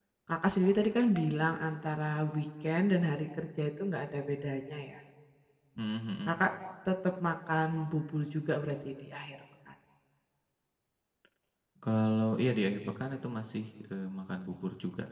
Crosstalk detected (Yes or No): No